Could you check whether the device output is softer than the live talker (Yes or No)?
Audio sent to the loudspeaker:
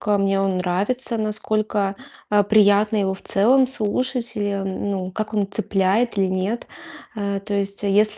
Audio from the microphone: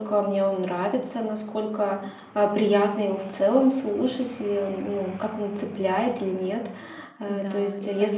No